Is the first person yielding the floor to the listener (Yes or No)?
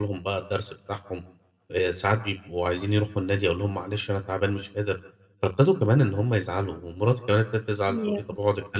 No